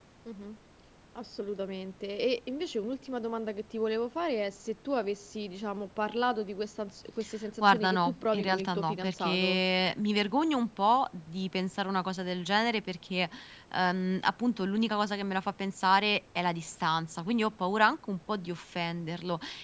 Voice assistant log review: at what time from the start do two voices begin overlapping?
8 s

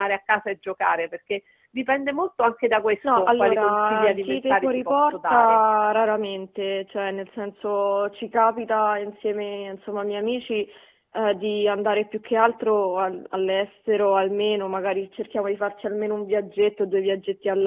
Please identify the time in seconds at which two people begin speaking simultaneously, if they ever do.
3 s

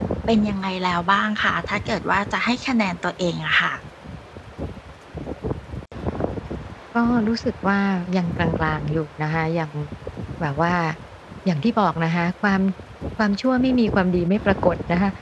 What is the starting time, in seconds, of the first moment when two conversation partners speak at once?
none

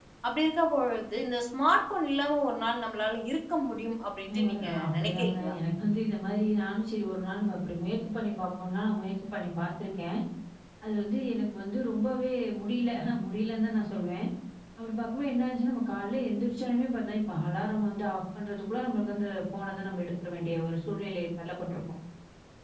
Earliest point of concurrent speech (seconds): 4 s

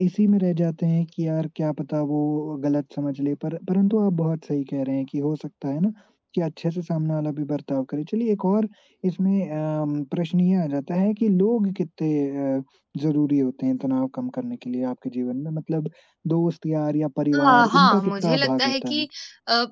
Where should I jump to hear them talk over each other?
17 s

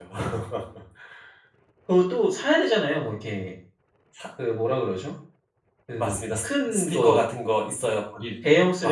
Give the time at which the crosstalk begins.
6 s

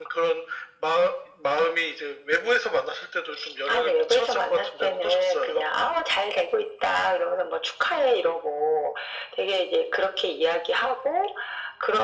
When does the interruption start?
4 s

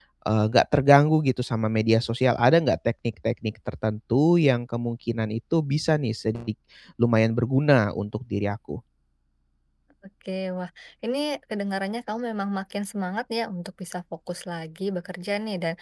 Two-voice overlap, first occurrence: none

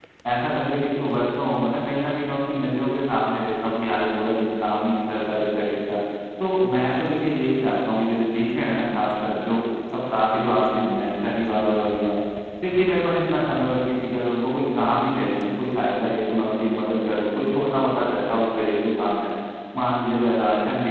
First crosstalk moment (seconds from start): none

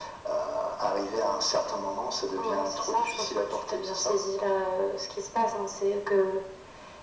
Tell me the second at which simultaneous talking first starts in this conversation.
2 s

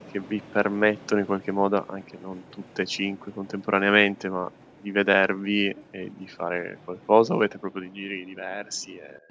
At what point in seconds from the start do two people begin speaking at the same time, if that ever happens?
none

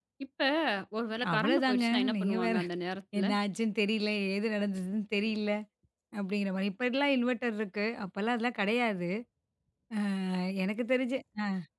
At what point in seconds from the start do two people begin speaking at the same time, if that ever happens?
1 s

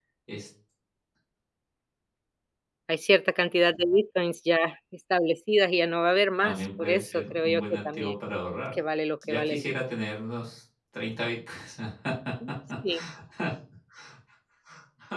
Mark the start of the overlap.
6 s

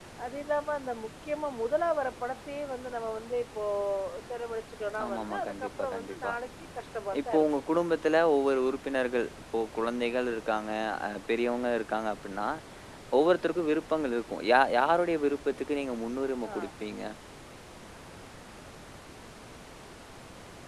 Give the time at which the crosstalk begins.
5 s

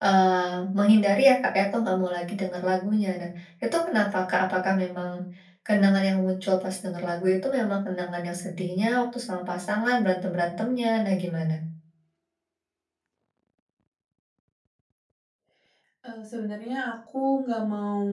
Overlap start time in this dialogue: none

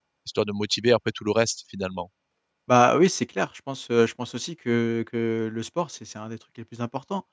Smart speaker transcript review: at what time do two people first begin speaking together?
none

